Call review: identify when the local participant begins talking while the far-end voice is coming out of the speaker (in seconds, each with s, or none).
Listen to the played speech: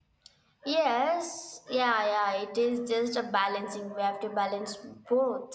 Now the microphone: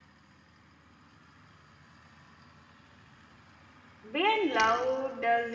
4.1 s